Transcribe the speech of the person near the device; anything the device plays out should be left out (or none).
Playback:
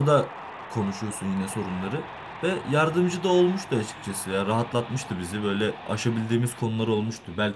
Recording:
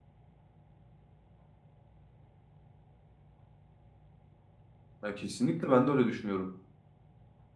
Ya kesinlikle ben de öyle düşünüyorum.